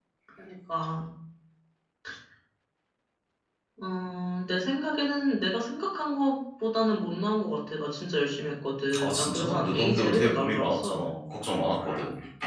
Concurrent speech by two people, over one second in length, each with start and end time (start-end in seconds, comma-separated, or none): 9.0-11.1